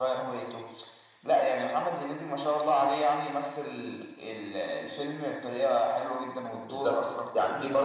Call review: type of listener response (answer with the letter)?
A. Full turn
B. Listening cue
A